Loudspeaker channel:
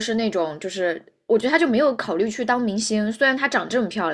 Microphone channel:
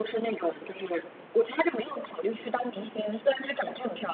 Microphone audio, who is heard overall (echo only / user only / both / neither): echo only